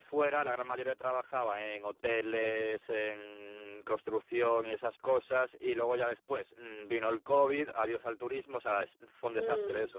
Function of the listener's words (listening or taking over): taking over